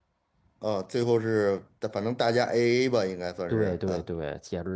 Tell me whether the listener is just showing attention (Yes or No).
No